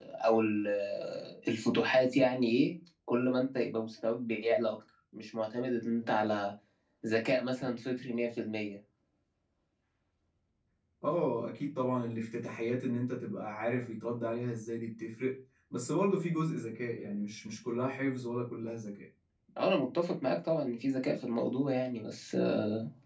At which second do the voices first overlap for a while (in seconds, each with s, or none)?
none